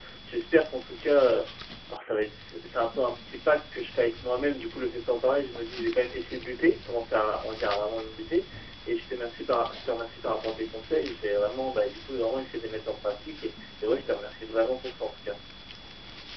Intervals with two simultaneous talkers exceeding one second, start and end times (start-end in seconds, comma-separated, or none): none